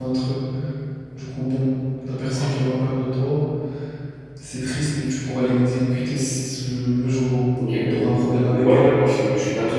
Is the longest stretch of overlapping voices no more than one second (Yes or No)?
No